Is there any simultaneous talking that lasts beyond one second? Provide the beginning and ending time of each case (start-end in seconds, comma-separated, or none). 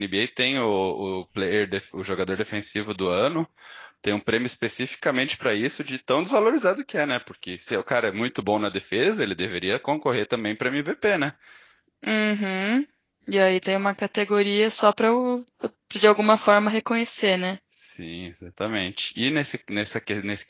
none